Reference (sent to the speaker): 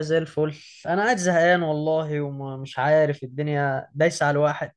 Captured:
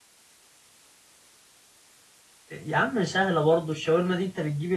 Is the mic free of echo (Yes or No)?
Yes